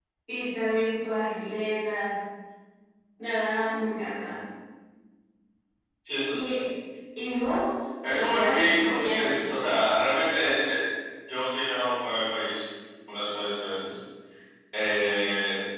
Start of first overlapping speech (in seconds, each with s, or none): 8.0 s